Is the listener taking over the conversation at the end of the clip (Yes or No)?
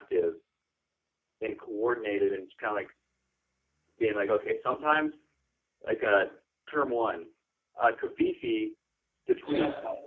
No